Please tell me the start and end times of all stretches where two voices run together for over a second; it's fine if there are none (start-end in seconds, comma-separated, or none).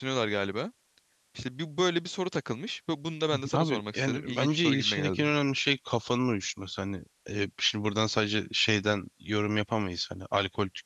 3.5-5.2